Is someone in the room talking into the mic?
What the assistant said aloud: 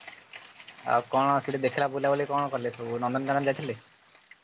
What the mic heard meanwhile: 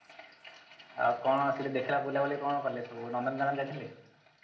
No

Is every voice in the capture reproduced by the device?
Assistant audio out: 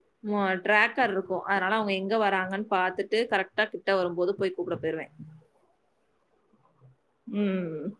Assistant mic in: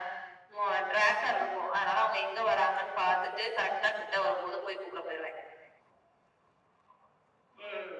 Yes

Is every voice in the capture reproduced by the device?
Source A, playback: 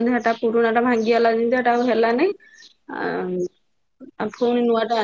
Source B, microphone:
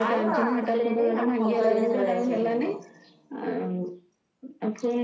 No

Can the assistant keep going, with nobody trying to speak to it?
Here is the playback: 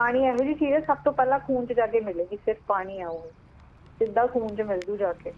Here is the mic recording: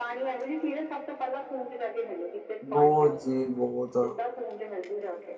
No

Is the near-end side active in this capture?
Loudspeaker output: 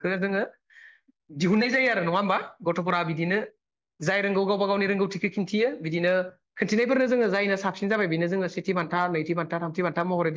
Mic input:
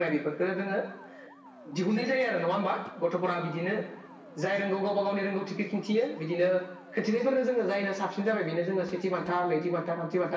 No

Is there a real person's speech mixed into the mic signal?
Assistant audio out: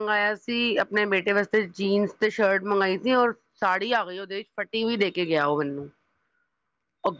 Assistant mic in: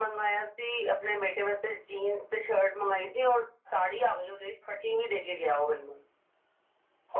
No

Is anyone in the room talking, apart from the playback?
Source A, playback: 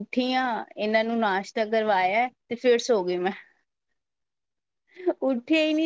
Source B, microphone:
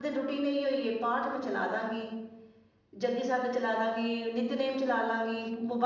Yes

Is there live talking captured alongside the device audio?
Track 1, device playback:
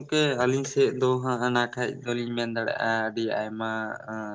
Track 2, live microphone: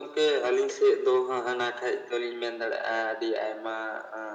No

